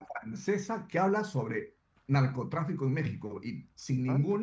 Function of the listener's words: listening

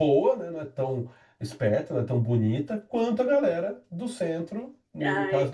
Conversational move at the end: taking over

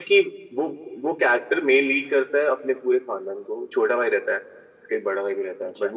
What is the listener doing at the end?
listening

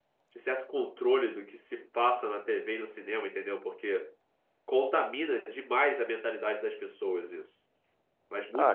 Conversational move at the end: taking over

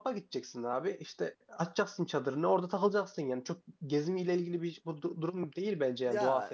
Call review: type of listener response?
taking over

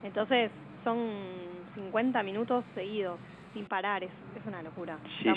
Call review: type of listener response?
taking over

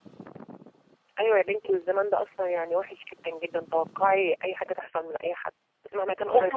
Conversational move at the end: taking over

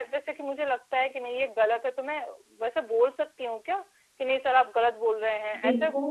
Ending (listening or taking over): taking over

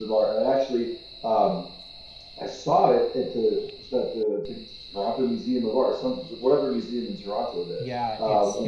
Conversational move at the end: taking over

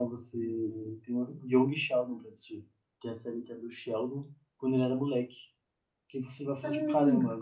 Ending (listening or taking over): listening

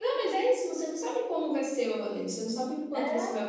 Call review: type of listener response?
listening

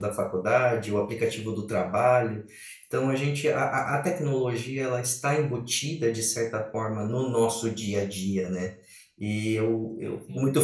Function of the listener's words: listening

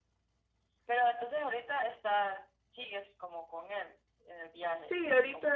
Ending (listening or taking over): taking over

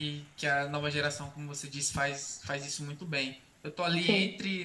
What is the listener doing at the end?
listening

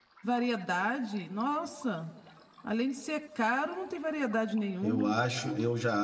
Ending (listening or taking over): taking over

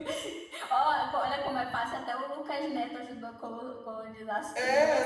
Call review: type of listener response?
taking over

